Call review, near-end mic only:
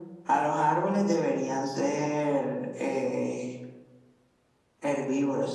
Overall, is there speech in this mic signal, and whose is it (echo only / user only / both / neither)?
echo only